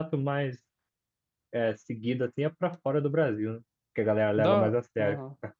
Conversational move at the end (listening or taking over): taking over